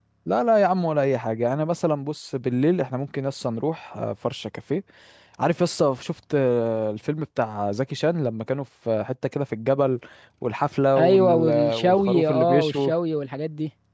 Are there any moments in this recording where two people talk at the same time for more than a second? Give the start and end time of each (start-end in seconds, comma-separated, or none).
11.0-12.9